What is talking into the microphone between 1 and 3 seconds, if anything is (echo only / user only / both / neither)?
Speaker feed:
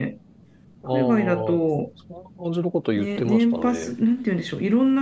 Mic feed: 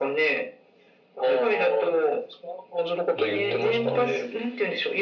echo only